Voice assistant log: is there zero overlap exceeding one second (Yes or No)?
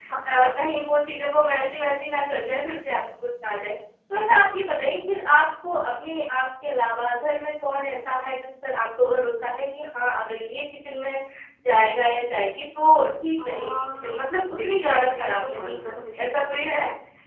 No